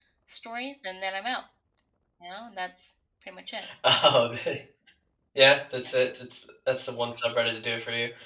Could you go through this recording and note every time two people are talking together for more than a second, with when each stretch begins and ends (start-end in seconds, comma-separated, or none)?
none